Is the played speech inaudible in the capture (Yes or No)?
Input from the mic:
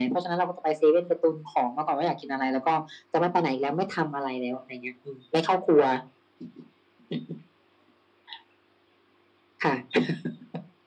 No